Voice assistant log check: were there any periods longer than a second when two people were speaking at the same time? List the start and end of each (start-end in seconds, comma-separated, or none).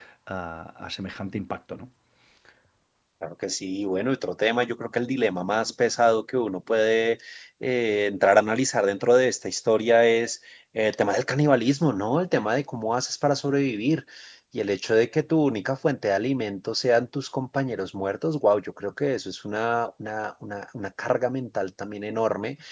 none